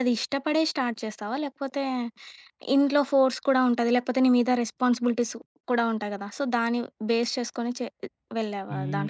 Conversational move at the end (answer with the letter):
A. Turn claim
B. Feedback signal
A